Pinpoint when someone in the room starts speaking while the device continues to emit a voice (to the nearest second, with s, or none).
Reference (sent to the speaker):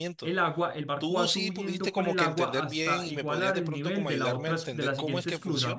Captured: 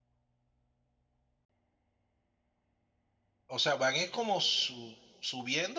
3 s